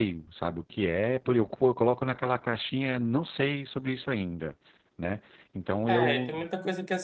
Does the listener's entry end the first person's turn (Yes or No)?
Yes